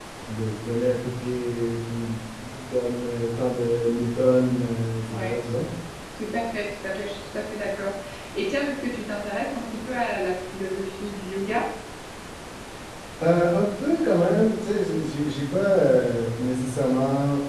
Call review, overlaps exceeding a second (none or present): none